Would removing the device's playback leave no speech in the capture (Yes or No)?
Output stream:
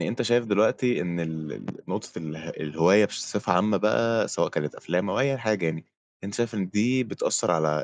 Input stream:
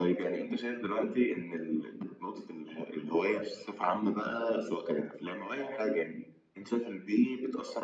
Yes